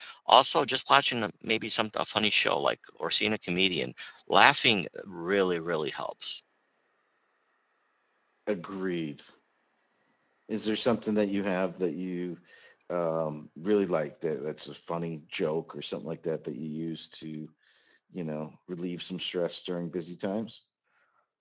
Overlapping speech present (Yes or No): No